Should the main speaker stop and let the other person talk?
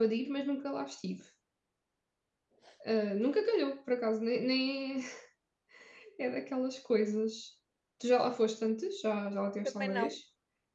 Yes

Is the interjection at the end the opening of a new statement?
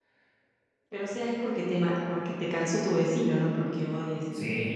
Yes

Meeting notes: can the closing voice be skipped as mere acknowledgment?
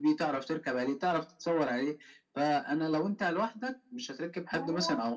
Yes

